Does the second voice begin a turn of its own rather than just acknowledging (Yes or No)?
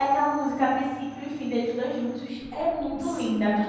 Yes